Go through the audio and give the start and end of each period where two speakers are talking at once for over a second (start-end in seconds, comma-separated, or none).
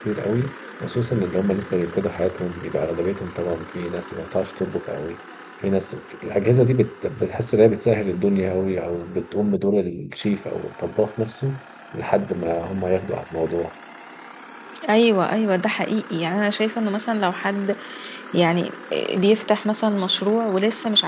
none